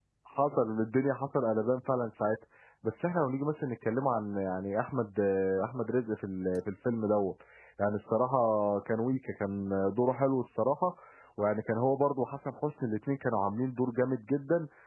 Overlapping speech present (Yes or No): No